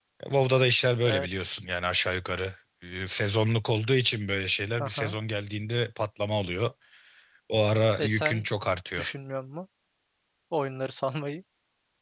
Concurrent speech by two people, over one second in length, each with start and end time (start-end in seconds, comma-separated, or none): none